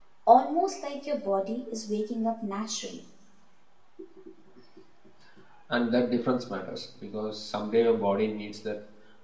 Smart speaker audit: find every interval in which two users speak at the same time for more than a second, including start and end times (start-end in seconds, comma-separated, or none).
none